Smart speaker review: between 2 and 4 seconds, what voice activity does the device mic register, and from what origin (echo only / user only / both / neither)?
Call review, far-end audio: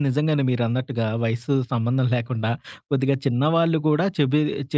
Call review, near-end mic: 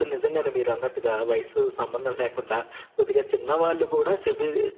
echo only